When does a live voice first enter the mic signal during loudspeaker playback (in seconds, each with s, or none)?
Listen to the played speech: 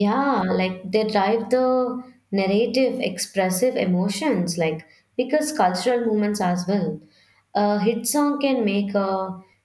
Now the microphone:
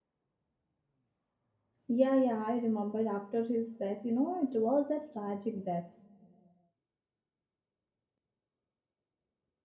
1.9 s